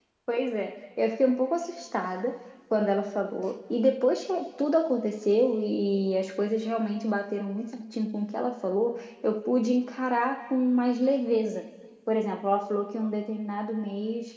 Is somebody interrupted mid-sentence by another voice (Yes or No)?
No